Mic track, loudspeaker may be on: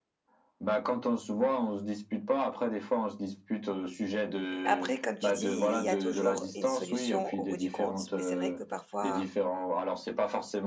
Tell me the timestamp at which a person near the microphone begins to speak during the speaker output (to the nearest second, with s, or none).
5 s